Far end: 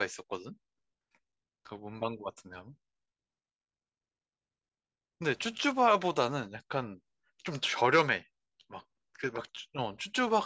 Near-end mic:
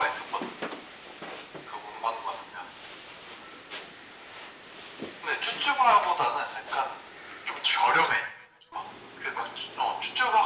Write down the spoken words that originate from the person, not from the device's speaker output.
none

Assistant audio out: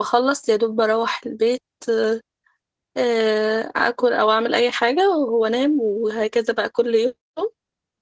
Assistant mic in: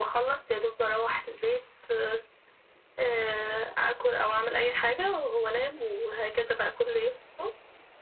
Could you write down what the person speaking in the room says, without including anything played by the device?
none

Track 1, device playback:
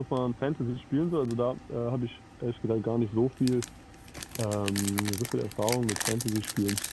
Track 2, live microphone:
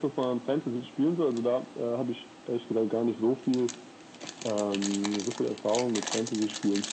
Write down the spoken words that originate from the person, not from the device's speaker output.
none

